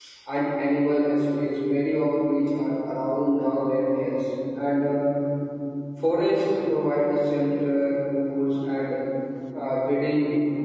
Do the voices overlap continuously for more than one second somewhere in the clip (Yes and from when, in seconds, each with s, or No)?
No